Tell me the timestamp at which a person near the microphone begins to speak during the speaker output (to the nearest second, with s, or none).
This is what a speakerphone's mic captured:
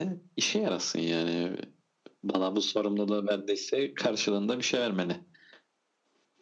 none